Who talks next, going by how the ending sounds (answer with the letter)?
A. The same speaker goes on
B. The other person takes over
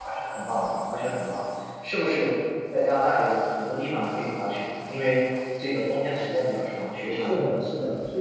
B